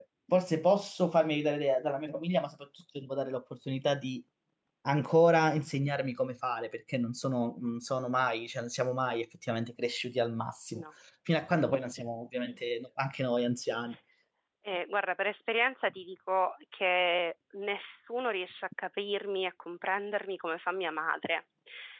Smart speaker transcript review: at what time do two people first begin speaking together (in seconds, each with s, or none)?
none